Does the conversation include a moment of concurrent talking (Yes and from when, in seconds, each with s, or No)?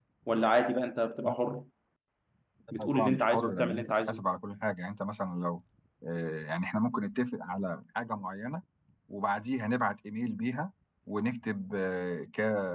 Yes, from 2.8 s